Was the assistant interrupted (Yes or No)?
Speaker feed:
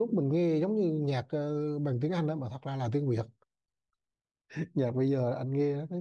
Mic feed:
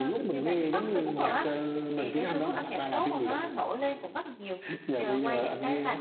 Yes